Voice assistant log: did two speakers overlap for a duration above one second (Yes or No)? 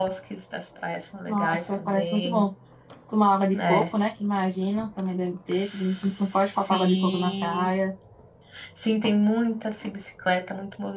Yes